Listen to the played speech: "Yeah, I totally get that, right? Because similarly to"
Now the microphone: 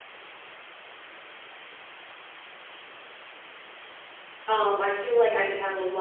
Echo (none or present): none